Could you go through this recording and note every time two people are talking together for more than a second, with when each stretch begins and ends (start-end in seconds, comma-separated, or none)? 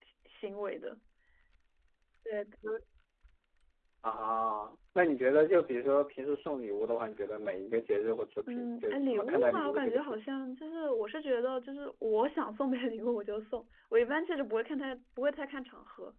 8.5-10.2